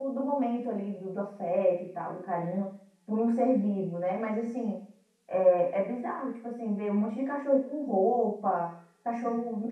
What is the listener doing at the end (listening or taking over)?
listening